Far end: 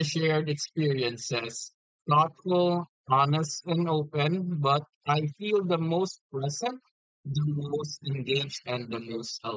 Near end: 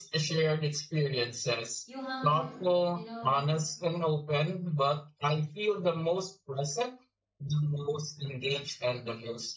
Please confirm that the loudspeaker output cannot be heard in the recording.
No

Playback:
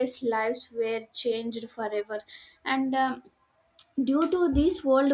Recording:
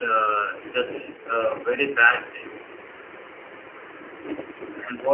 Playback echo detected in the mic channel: No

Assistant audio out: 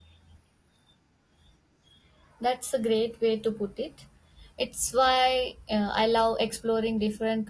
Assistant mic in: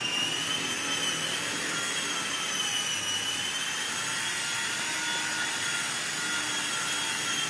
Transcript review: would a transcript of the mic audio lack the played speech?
Yes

